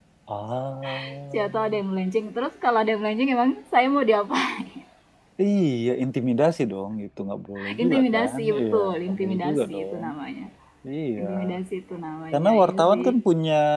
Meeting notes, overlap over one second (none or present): present